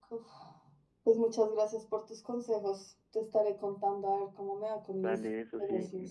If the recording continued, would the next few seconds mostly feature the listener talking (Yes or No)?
Yes